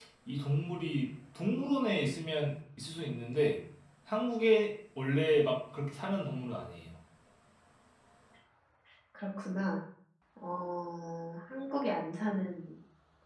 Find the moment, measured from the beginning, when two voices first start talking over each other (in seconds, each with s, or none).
none